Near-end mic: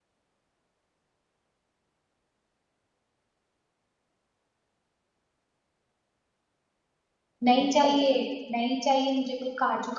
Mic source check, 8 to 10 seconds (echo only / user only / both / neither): user only